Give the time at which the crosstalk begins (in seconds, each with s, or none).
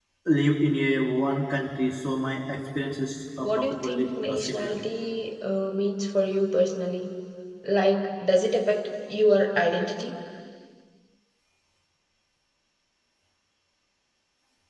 3.4 s